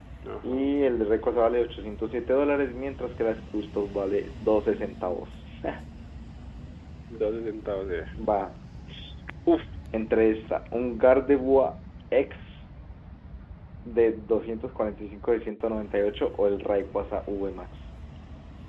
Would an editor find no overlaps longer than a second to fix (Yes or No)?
Yes